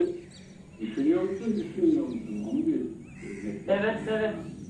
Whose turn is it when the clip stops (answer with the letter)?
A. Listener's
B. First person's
A